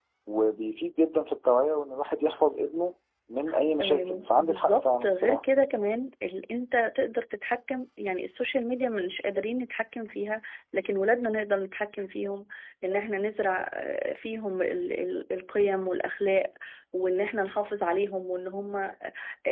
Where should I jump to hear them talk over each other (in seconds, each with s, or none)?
3.8 s